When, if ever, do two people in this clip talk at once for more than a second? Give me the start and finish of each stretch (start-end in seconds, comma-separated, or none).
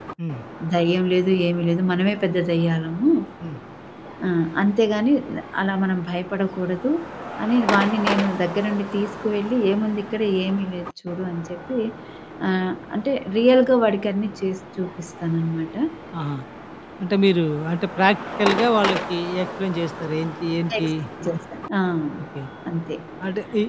none